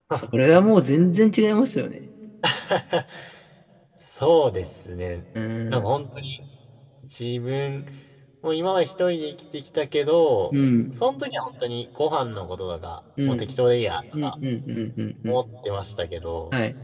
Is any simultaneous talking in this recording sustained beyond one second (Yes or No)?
No